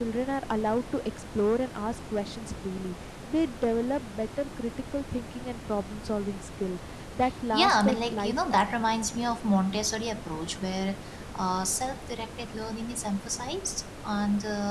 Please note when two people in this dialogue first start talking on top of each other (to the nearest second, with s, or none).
8 s